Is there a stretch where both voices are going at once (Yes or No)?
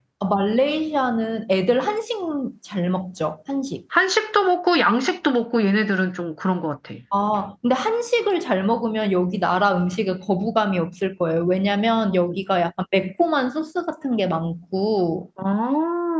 No